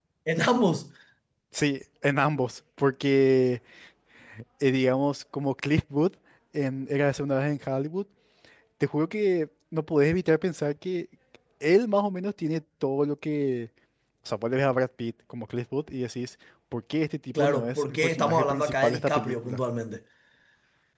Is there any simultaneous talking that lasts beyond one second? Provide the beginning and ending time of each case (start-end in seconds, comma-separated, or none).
17.4-19.6